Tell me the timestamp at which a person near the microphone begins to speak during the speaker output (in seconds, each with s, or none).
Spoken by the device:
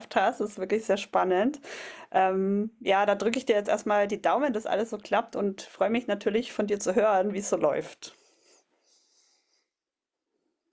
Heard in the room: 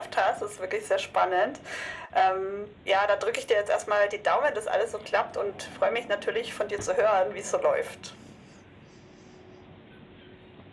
none